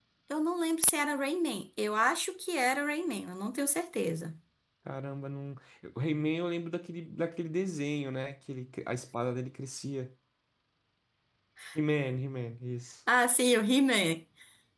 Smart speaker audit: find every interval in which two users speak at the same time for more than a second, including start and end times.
none

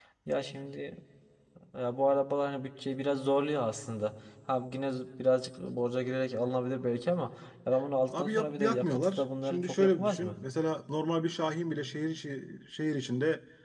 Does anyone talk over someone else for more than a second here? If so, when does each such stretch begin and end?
8.1-10.4

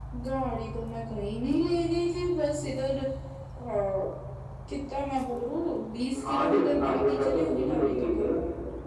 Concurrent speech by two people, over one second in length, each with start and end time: 6.3-8.3

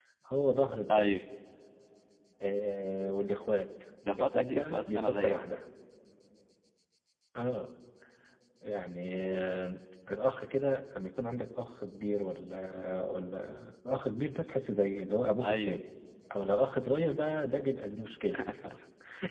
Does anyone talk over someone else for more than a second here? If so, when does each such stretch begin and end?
4.1-5.4

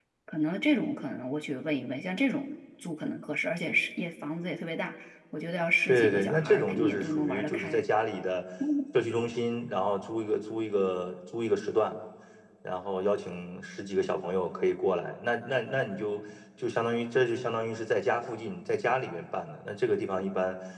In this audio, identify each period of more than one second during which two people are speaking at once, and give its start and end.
5.9-7.8

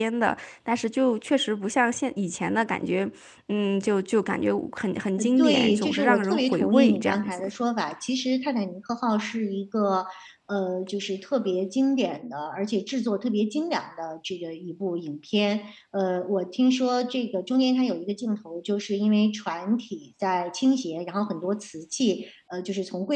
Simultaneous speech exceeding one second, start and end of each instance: 5.4-7.4

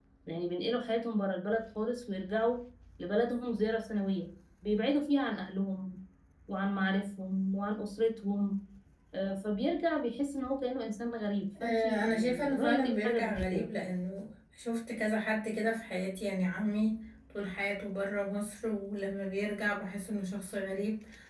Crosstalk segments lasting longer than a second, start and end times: 11.6-13.7

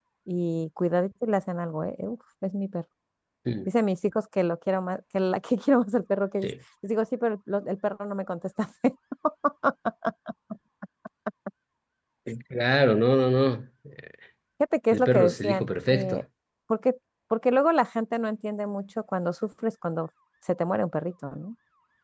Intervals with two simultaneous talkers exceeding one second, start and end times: 14.9-16.2

